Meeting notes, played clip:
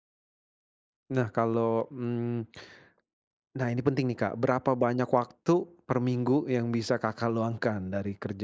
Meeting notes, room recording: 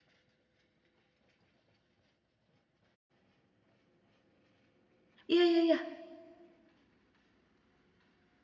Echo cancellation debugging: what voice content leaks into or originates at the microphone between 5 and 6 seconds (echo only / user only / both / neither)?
user only